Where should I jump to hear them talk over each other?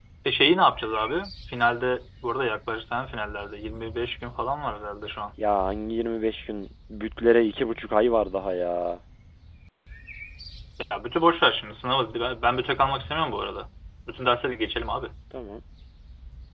none

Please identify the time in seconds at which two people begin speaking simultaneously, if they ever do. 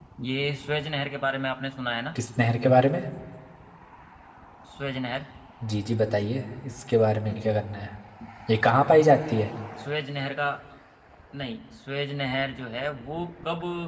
none

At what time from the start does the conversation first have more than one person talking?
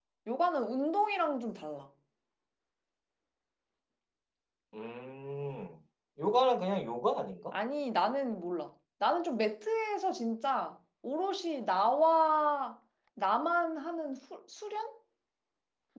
none

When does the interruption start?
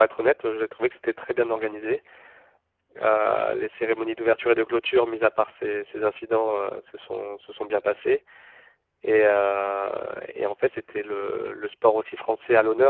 none

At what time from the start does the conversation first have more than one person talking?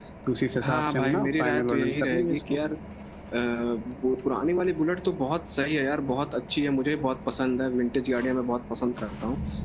1 s

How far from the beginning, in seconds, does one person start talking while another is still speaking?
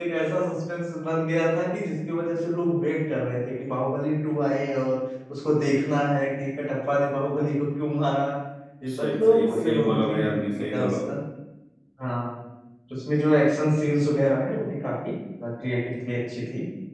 9 s

